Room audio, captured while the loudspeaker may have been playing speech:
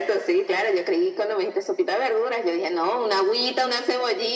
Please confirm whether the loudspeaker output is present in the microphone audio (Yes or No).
Yes